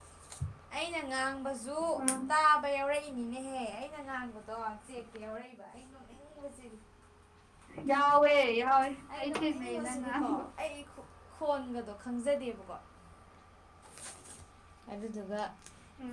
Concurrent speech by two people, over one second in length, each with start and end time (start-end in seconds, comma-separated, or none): 9.2-10.4